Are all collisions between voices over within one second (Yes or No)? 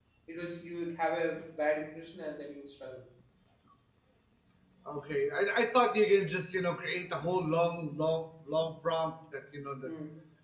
Yes